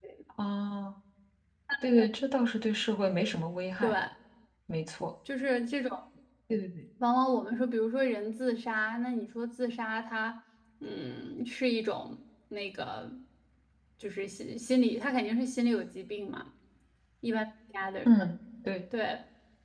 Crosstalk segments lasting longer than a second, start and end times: none

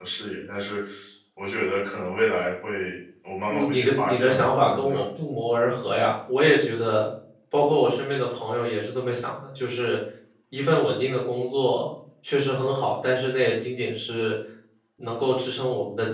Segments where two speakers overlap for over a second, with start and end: 3.5-5.0

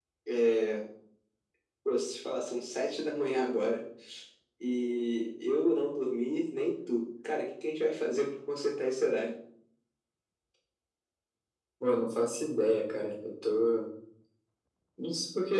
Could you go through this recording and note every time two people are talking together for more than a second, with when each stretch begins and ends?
none

